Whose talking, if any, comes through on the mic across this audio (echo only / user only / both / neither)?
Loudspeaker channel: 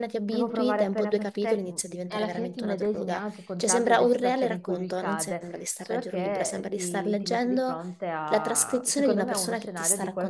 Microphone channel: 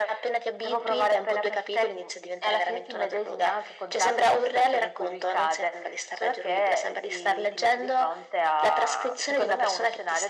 echo only